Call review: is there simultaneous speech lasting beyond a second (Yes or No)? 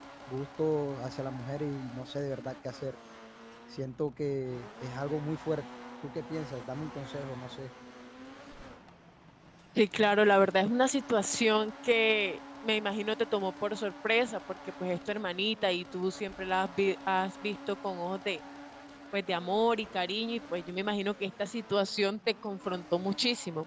No